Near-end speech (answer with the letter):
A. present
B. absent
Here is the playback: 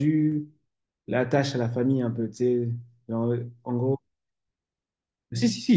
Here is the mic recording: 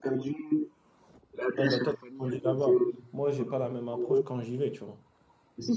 A